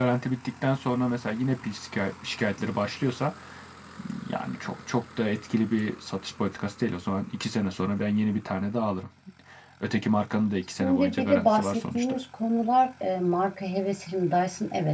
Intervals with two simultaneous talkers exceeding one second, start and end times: 10.8-12.2

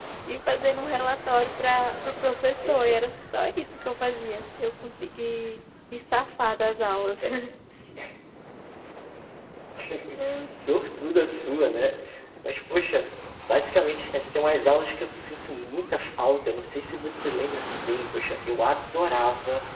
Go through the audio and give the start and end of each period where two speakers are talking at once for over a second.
none

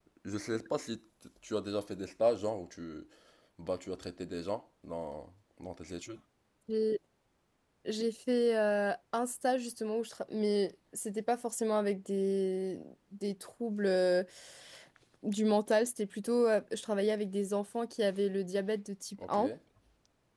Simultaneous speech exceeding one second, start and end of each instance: none

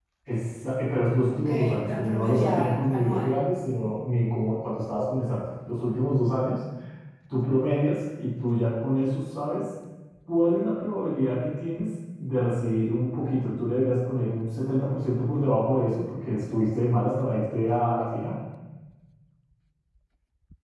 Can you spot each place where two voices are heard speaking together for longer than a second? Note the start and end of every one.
1.4-3.3

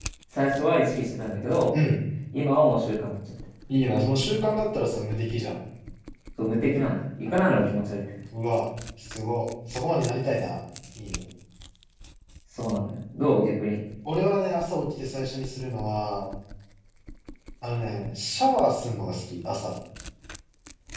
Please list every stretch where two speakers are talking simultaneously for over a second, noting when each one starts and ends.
none

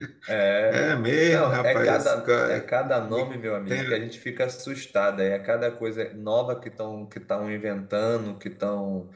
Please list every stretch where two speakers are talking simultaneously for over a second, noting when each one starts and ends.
1.3-2.7

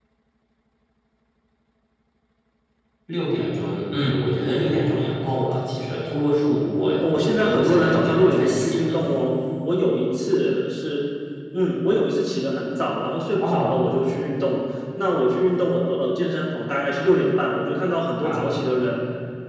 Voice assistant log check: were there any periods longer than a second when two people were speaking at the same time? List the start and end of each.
7.2-8.8

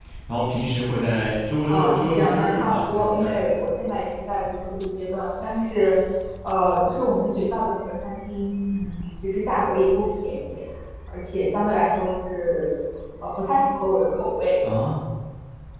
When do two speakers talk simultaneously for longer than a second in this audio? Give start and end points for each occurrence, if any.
1.7-3.6

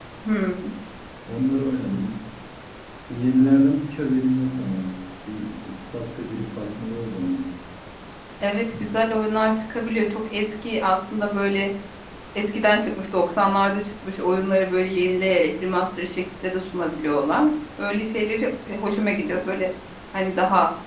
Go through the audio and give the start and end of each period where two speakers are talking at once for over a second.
none

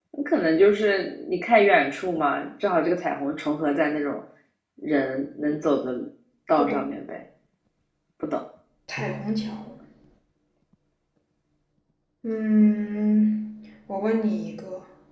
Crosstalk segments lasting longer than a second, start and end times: none

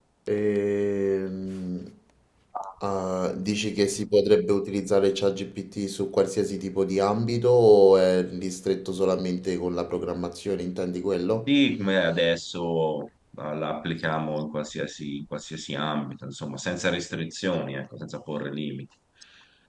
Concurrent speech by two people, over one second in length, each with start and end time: none

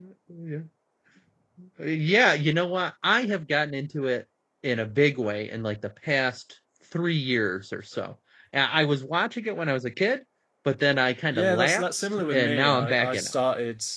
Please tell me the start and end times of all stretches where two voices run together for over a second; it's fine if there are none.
11.3-13.3

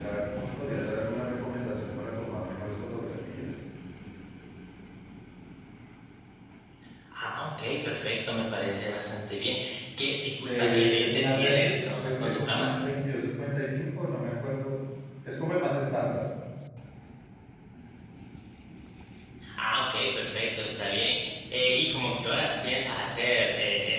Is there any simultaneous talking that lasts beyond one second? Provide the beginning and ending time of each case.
10.4-12.8

